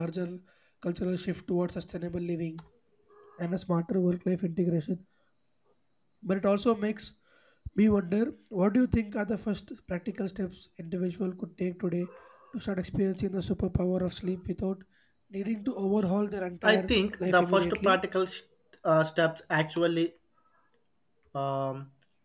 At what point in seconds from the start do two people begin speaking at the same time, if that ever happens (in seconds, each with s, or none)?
16.6 s